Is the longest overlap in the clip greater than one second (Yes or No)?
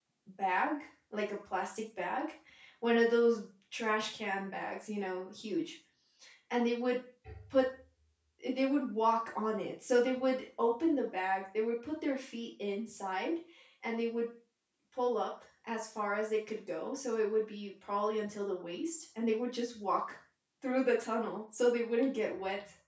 No